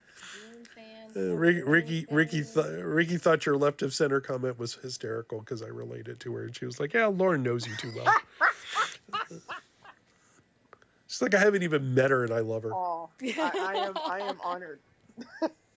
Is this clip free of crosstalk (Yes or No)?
No